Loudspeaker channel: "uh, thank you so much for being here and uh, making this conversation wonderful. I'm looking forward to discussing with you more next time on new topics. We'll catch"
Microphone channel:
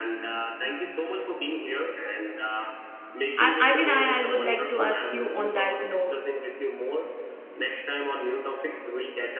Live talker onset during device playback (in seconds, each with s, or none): 3.4 s